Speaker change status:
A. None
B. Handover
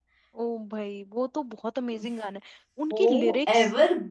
B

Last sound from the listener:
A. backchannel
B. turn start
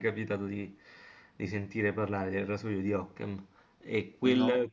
A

